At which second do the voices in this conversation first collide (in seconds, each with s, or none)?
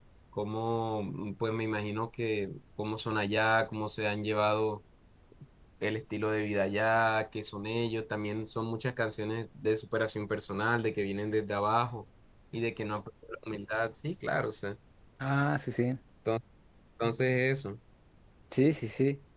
none